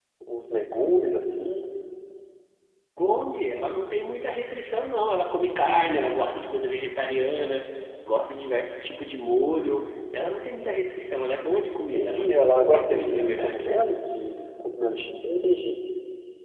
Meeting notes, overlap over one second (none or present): present